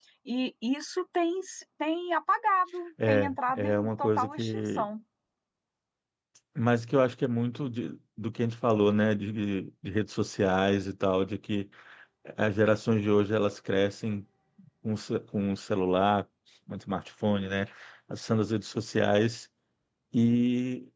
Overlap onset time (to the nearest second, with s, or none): 3 s